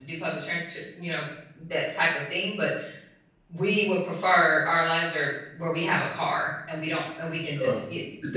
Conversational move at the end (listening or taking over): taking over